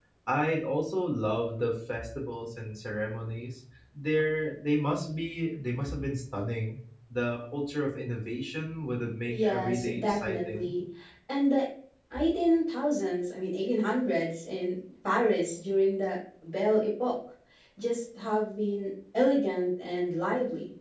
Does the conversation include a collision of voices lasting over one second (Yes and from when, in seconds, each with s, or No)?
Yes, from 9.3 s